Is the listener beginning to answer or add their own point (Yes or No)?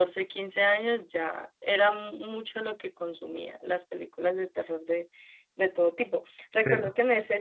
No